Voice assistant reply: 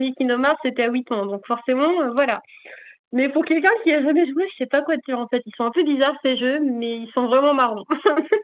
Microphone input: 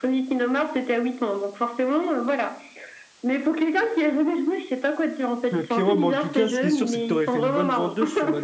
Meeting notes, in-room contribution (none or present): present